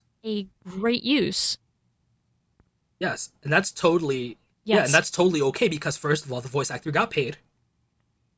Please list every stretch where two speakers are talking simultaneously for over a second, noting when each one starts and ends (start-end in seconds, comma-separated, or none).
none